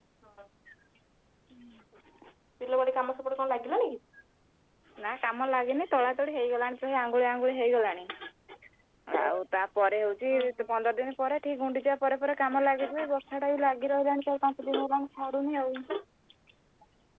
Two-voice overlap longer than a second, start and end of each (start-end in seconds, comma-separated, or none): none